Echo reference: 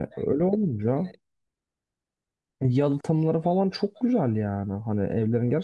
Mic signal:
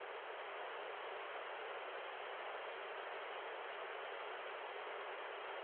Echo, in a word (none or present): none